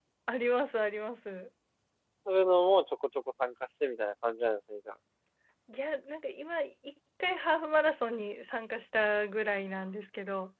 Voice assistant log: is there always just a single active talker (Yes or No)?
Yes